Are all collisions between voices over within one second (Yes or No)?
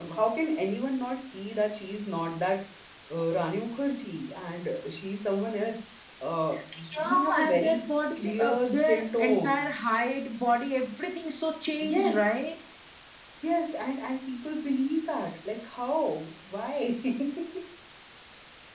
No